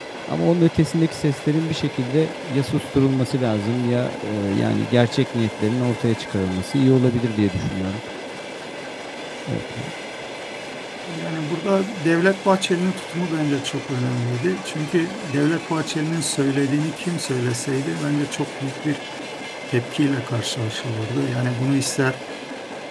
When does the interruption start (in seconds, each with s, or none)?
none